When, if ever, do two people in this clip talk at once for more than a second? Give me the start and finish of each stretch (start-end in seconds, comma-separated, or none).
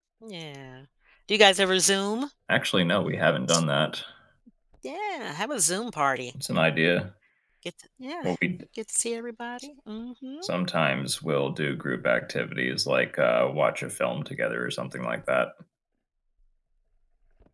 none